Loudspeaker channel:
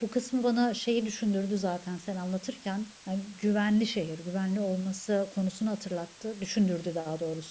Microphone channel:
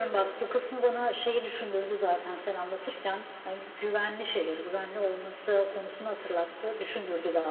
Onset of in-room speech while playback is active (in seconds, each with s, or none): none